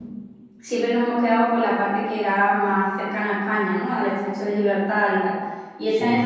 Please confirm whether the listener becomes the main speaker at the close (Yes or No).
No